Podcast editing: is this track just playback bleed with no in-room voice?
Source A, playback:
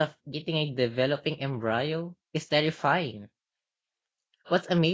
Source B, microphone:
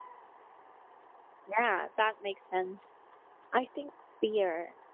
No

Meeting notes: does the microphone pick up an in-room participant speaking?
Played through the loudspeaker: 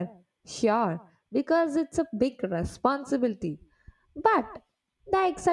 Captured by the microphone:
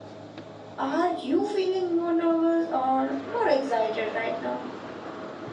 Yes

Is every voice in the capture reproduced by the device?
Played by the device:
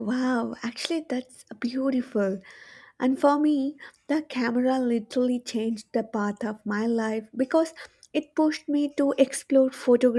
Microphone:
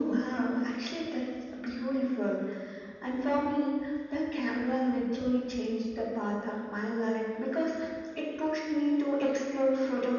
Yes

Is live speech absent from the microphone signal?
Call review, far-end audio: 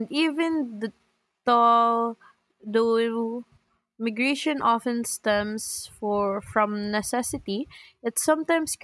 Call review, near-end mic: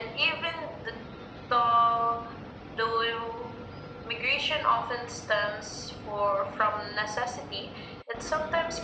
Yes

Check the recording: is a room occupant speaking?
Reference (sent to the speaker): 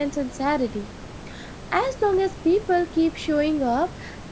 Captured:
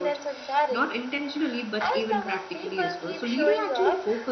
Yes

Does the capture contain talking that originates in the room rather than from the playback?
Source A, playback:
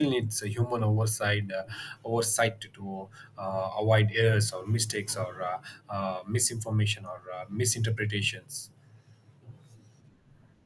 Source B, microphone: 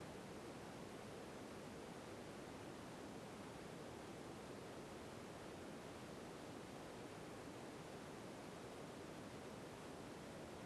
No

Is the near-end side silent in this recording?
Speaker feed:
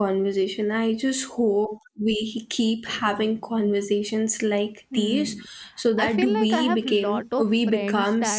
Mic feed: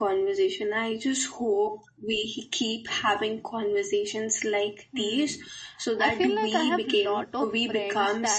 Yes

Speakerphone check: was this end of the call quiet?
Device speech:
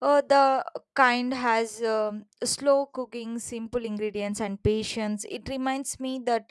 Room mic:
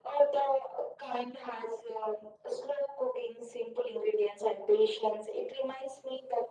Yes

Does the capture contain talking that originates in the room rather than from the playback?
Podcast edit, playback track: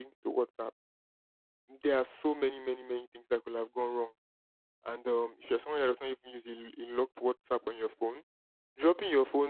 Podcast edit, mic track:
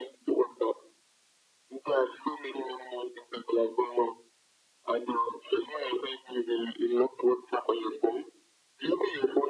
No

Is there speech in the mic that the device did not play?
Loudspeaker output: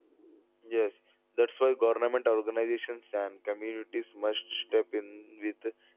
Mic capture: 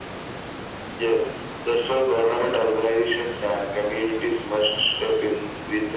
No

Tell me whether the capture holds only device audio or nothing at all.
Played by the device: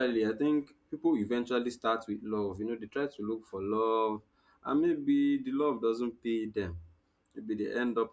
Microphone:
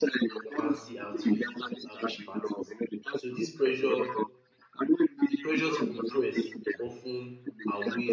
No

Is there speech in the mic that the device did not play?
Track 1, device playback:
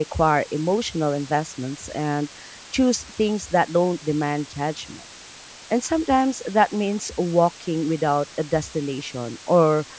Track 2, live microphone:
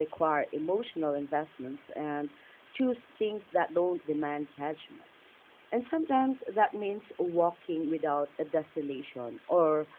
No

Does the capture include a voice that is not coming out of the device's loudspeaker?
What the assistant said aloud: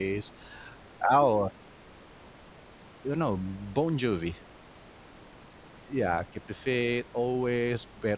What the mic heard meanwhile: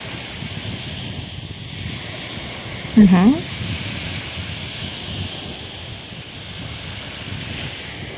Yes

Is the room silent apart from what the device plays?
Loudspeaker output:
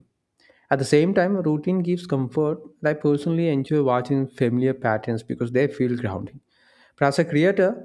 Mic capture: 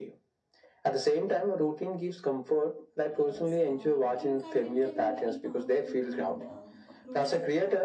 No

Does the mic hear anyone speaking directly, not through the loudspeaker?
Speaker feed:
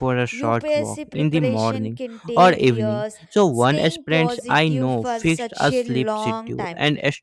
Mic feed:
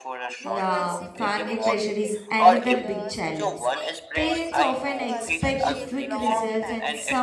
Yes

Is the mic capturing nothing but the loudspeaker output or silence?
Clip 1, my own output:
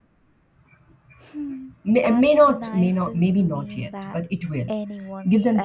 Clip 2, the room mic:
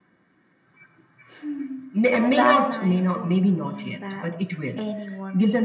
No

